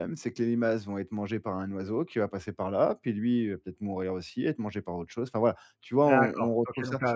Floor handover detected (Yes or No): Yes